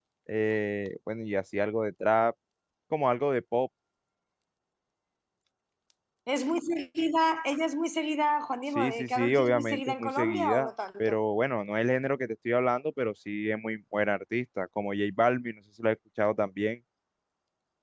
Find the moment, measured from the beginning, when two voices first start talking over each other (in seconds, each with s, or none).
8.8 s